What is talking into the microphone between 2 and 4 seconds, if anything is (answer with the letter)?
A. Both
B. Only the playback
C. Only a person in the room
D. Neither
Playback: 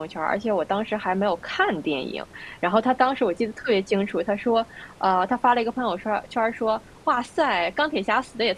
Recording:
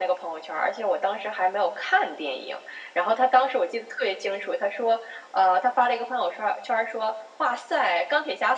B